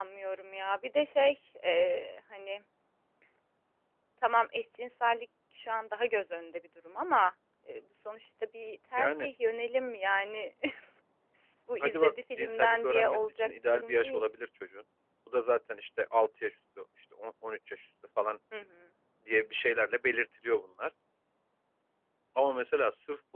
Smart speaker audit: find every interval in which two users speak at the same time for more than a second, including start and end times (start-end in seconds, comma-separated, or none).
11.8-14.2